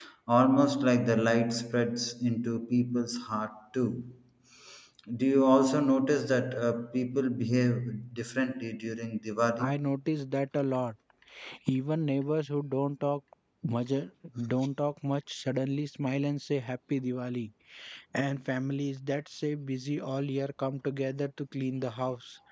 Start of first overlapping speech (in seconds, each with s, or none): none